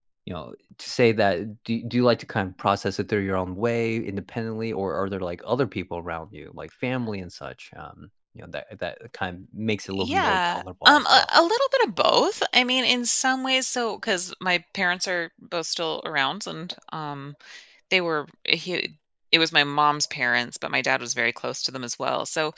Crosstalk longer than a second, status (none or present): present